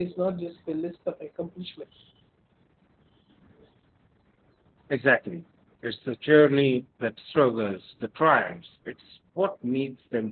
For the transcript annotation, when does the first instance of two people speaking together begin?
none

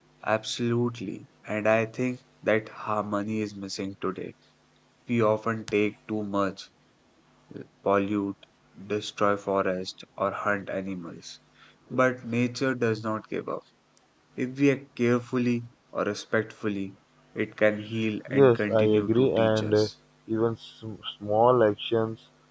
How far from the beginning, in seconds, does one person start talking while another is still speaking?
18.3 s

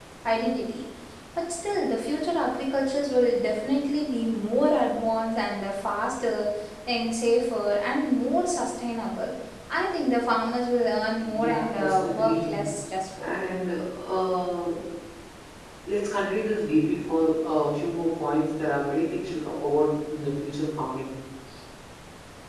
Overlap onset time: 11.2 s

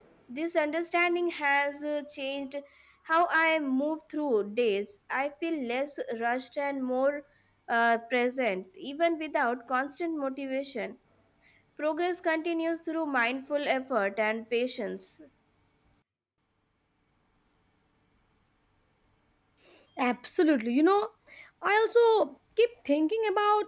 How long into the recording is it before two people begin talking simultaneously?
none

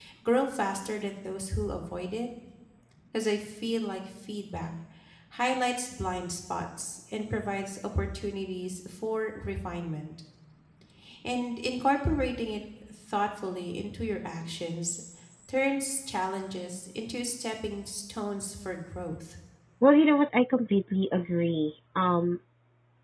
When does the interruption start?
none

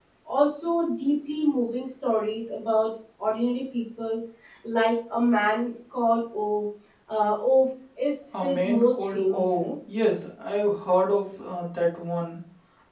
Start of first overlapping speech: 8.3 s

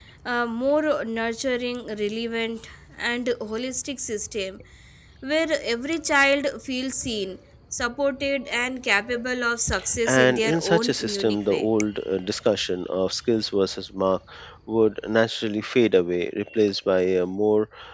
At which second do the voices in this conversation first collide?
10.1 s

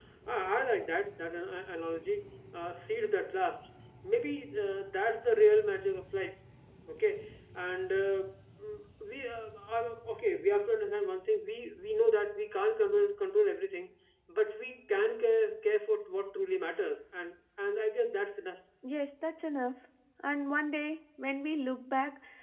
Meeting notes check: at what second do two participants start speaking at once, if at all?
none

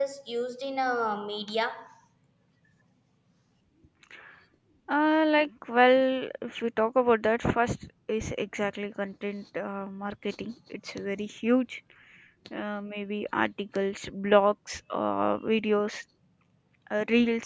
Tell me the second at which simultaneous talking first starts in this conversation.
none

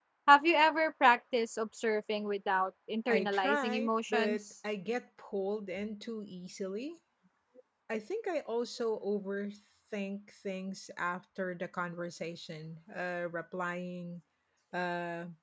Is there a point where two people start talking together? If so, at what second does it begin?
3.1 s

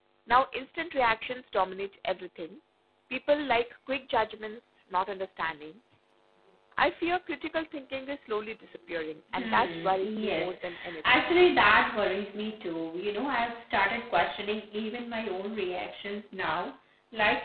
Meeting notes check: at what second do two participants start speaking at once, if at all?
9.3 s

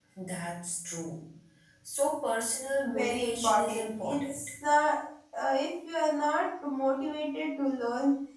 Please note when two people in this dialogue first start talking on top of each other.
2.9 s

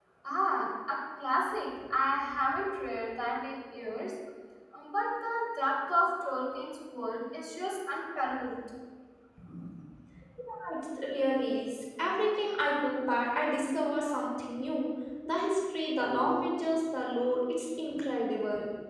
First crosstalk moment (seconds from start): none

